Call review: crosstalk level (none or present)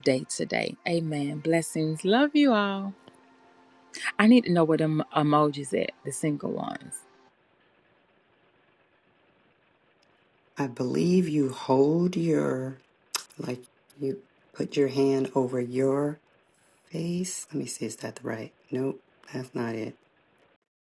none